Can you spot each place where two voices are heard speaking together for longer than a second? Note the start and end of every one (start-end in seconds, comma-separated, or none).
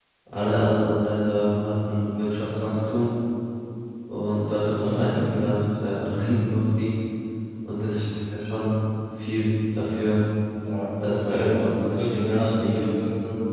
11.0-12.8